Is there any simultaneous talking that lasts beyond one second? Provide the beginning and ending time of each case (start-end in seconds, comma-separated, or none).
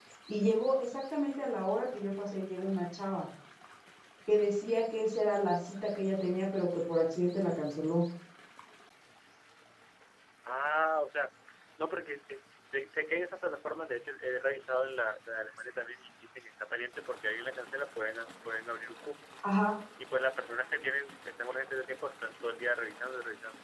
none